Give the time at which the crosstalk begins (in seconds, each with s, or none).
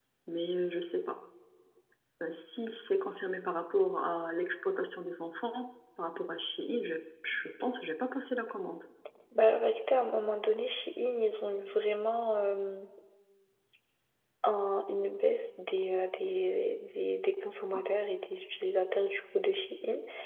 none